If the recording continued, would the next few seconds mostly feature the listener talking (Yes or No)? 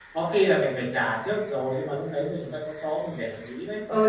Yes